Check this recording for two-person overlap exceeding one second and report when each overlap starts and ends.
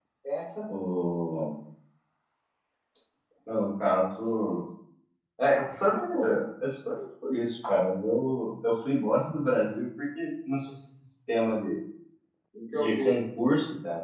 none

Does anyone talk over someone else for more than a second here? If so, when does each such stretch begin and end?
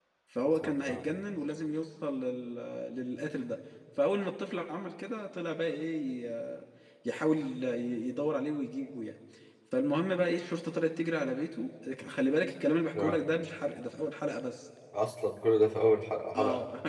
none

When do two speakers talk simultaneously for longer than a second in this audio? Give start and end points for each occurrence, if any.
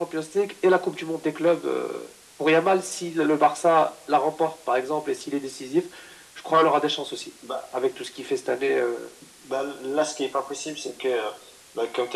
none

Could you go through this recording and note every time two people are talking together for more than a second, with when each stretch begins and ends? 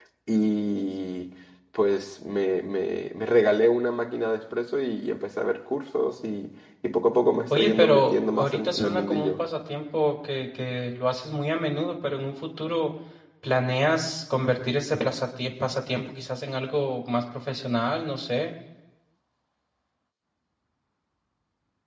7.5-9.4

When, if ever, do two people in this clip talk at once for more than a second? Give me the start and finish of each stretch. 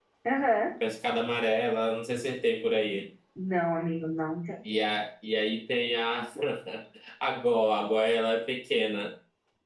none

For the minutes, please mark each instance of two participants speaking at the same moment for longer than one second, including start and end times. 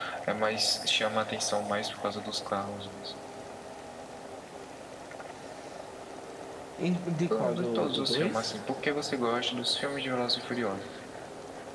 7.3-8.5

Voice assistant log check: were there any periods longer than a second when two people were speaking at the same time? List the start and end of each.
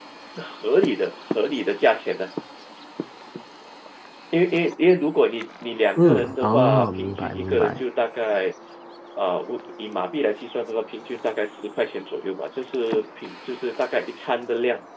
6.0-7.8

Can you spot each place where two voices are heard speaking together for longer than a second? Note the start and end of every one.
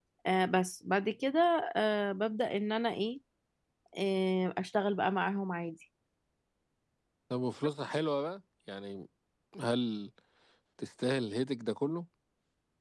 none

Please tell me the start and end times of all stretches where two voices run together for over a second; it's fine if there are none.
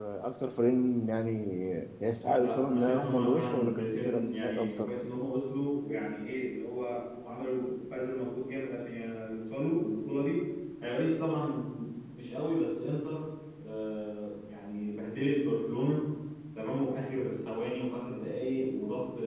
2.4-4.9

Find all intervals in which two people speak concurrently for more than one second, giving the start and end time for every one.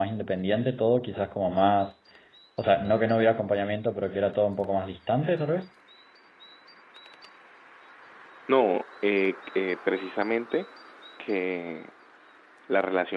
none

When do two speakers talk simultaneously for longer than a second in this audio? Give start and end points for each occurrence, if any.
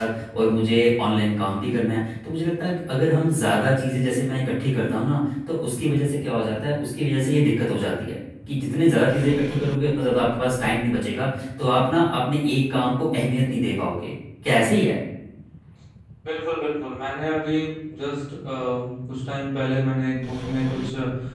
none

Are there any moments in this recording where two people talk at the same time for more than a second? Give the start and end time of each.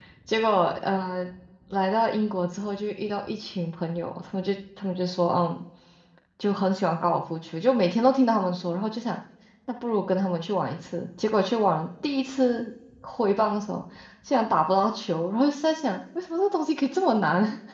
none

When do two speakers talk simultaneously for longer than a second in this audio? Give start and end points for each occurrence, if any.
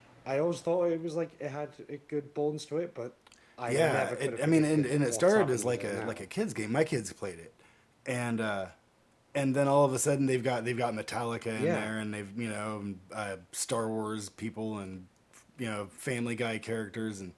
3.7-6.2

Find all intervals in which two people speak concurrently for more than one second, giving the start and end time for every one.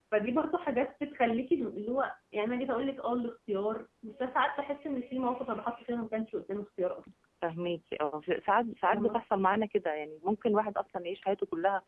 none

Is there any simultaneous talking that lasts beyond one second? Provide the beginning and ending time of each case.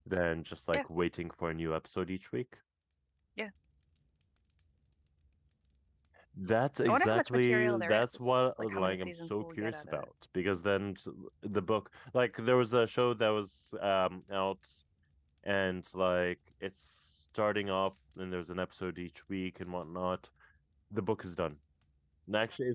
6.9-10.1

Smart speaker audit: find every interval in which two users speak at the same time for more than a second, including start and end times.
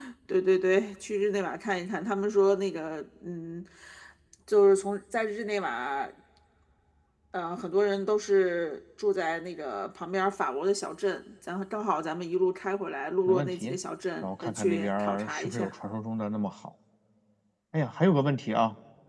14.2-15.7

